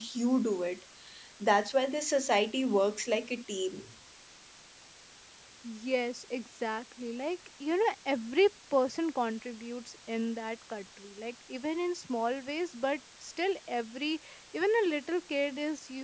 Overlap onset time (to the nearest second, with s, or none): none